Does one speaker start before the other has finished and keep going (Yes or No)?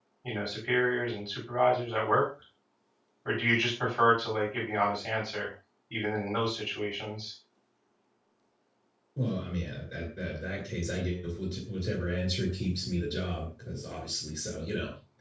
No